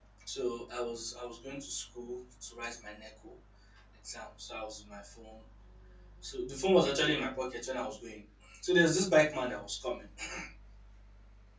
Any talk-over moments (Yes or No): No